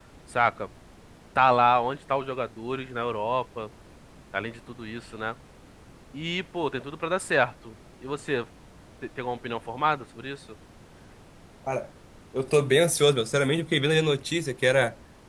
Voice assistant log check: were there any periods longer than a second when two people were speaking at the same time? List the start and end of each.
none

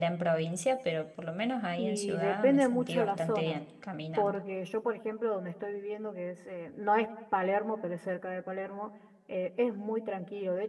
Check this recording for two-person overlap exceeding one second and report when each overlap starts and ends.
1.8-3.6

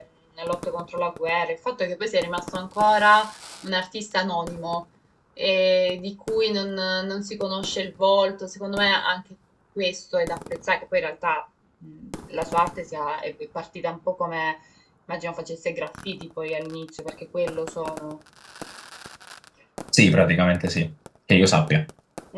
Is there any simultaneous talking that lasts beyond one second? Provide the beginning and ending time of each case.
none

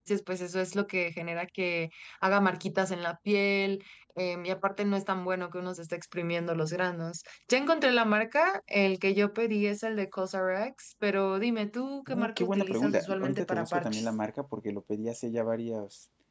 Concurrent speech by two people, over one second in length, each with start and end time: 12.1-14.1

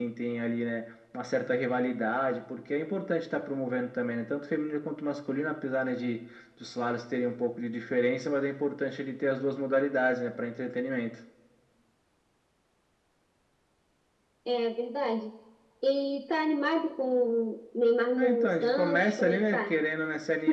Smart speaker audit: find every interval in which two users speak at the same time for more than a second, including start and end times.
18.2-19.7

